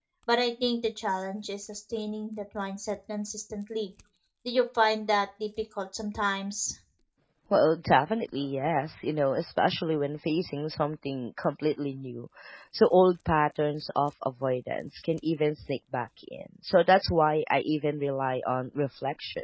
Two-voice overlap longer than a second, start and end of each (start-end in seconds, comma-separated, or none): none